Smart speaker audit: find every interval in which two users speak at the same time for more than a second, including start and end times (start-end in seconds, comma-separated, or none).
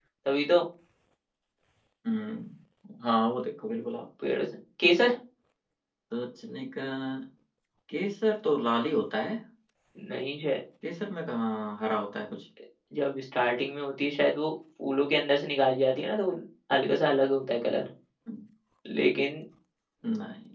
none